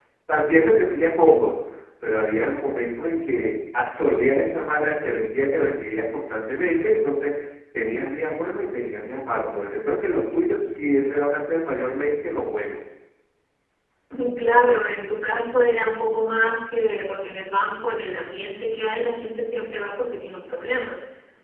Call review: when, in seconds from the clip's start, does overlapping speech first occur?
none

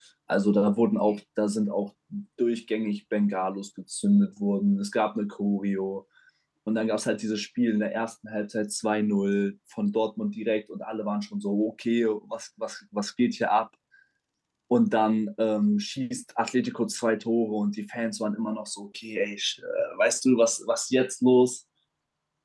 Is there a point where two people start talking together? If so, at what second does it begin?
none

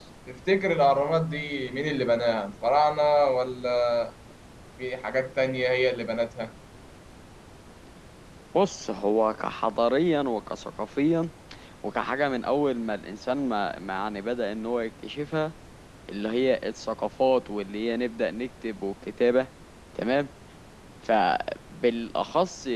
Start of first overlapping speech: none

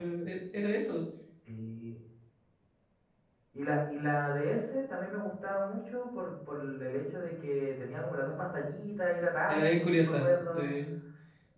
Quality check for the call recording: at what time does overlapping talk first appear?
9.5 s

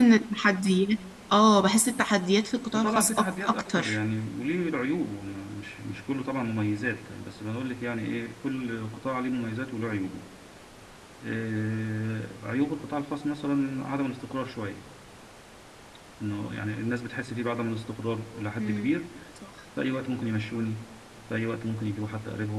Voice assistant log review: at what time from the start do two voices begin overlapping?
2.7 s

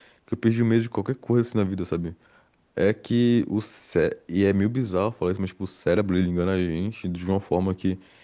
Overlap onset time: none

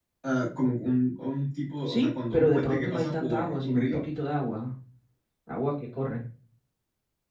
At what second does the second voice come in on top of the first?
1.9 s

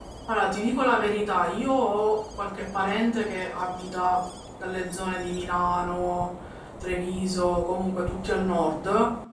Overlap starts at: none

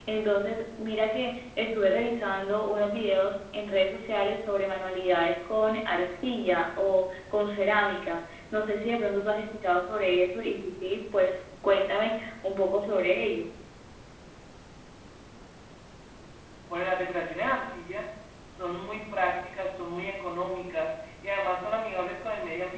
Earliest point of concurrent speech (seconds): none

